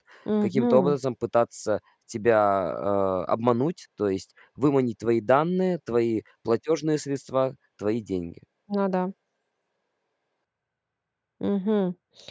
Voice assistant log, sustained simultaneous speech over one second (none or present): none